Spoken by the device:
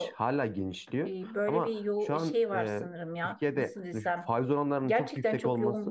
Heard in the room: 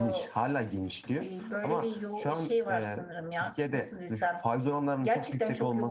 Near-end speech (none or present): none